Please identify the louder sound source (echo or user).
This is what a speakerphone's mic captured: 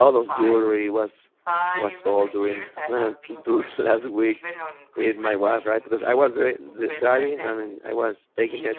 user